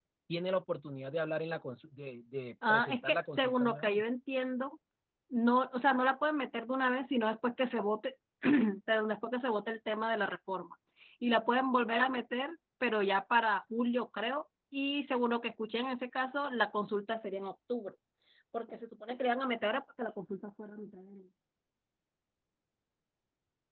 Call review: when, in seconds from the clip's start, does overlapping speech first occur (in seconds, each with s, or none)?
2.6 s